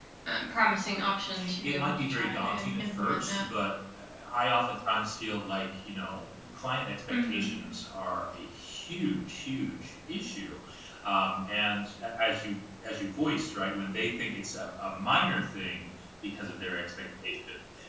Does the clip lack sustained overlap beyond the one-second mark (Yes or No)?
No